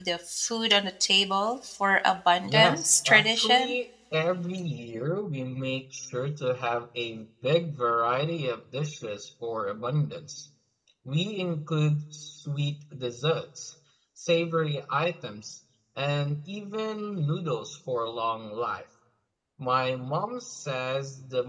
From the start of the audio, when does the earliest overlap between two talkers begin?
2.4 s

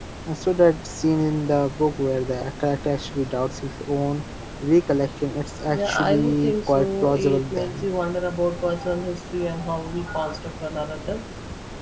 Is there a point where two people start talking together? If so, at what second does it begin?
5.7 s

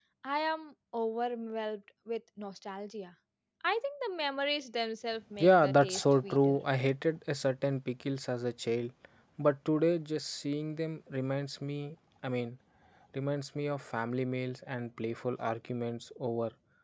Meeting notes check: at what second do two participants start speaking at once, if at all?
5.4 s

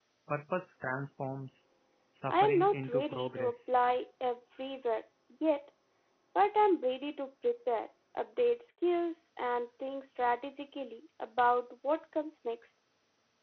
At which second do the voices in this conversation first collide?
2.3 s

